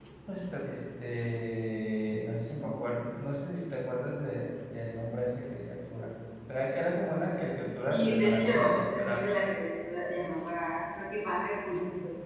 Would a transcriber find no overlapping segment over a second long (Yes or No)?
No